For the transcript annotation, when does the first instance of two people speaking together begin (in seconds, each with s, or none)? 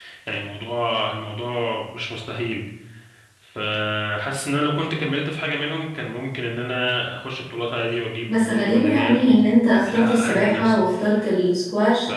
8.3 s